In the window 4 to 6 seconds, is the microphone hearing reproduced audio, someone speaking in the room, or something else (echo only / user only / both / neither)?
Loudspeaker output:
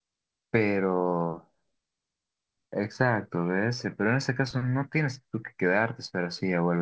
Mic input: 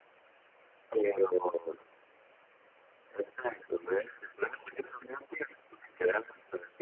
echo only